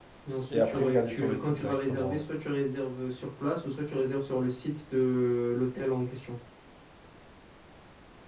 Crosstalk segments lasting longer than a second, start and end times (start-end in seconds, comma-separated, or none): 0.5-2.2